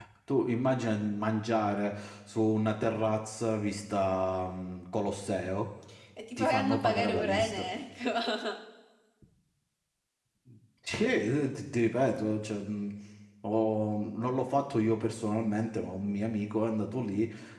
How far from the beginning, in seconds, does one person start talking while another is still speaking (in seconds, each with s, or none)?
6.4 s